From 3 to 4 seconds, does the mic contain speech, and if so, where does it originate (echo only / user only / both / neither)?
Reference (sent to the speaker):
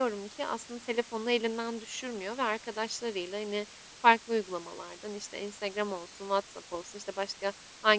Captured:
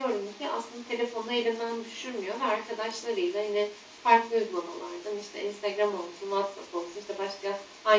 echo only